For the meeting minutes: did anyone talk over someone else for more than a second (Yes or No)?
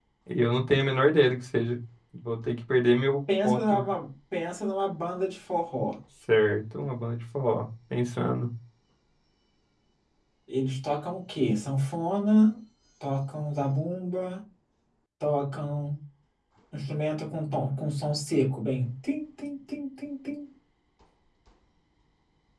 No